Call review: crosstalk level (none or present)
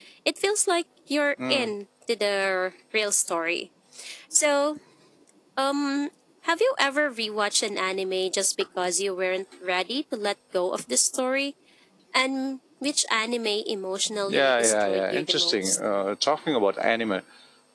present